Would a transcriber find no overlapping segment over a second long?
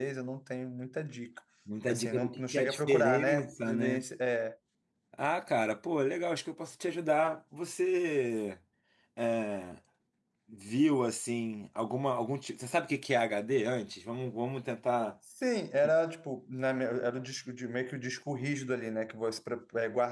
No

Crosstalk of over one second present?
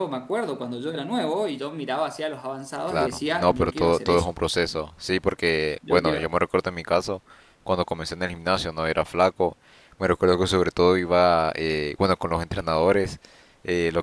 Yes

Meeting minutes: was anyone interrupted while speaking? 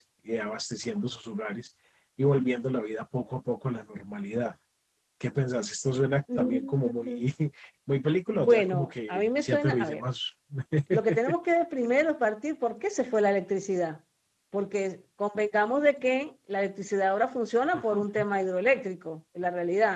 Yes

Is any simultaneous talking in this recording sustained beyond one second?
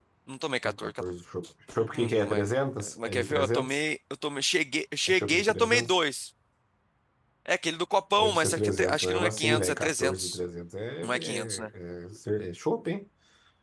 Yes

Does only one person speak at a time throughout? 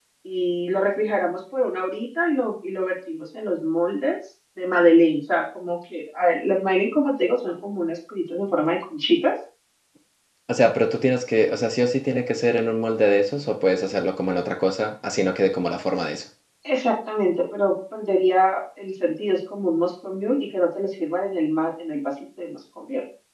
Yes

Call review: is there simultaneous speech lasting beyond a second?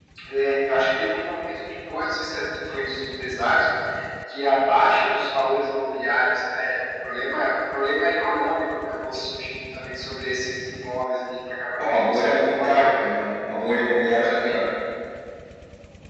Yes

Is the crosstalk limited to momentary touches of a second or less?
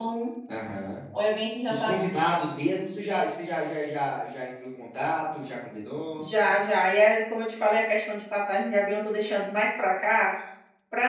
Yes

